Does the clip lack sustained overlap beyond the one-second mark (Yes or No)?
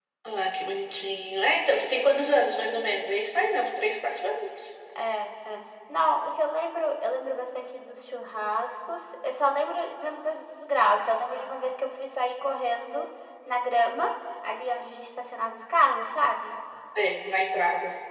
Yes